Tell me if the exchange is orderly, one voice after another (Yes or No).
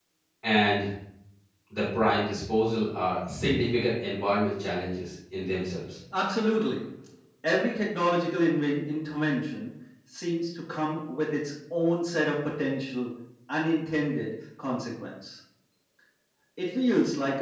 Yes